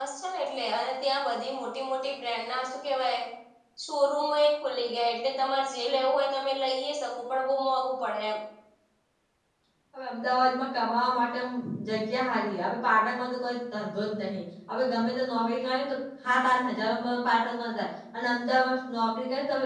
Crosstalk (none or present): none